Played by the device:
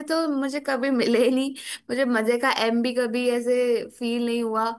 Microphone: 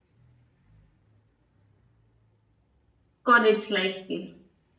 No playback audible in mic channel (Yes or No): Yes